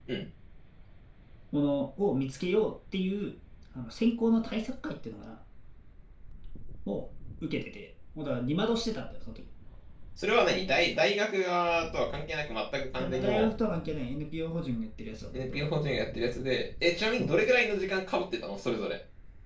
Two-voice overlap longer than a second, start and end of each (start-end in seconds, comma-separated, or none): none